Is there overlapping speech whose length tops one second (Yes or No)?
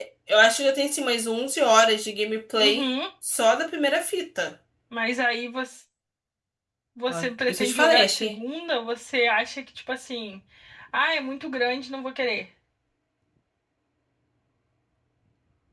Yes